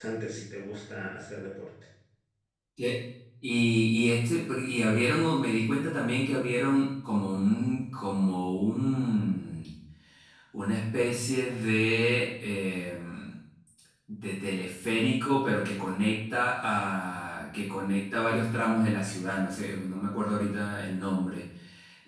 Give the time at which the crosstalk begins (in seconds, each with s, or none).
none